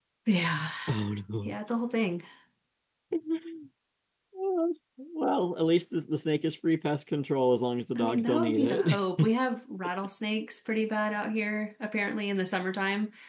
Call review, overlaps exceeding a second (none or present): present